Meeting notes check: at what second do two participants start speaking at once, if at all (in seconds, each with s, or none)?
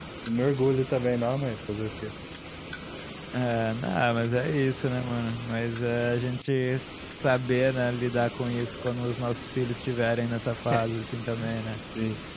none